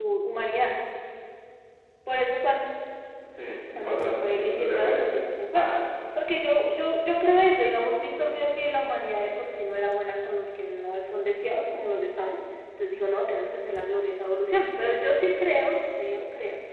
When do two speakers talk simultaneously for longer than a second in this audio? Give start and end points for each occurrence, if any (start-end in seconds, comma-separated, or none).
3.8-5.0